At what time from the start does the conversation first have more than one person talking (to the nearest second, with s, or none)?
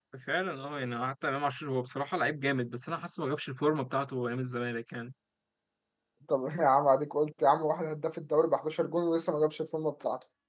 none